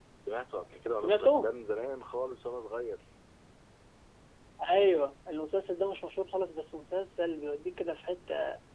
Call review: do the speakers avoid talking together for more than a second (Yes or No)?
Yes